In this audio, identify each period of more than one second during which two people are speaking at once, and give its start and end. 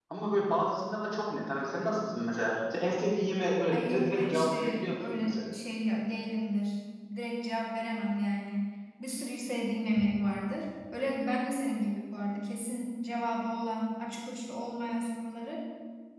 3.7-5.4

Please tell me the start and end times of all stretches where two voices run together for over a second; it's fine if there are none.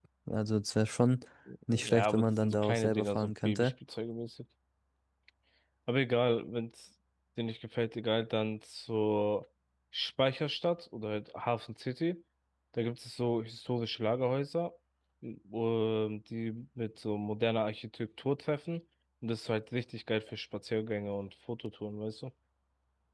1.9-3.7

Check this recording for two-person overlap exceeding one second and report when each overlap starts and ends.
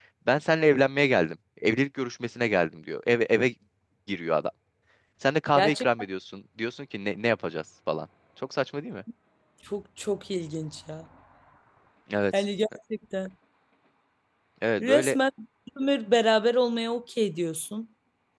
none

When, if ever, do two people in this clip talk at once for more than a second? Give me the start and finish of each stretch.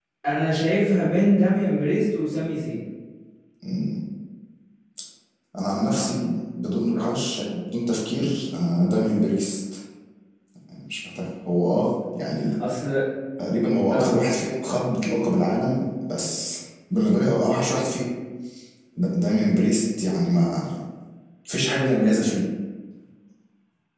none

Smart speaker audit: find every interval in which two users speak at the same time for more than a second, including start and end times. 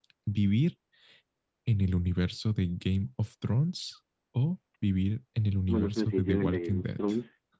5.7-7.0

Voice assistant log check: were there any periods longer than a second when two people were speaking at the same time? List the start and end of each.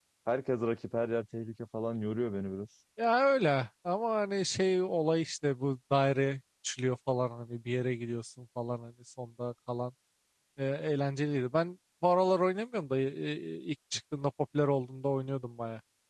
none

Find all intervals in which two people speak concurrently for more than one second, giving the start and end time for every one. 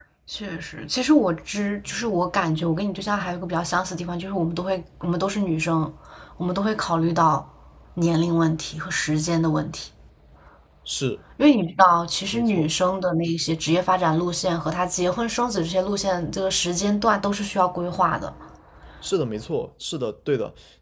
none

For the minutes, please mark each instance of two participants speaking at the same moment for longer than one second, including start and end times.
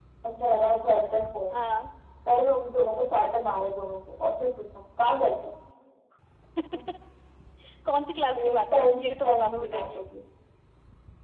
8.3-10.0

